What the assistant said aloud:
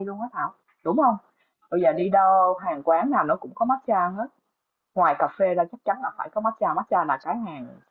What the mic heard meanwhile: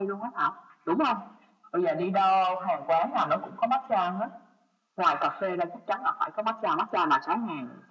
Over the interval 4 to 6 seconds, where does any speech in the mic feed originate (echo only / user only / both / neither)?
echo only